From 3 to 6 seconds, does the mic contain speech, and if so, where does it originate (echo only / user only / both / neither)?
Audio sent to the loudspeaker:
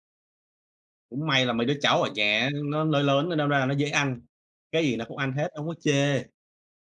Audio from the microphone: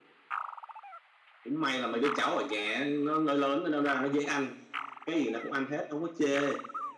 echo only